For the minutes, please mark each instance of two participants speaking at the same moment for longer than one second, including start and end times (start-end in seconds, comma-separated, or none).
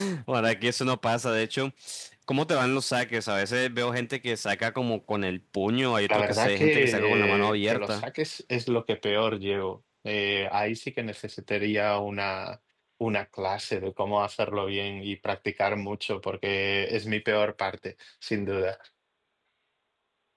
6.1-8.0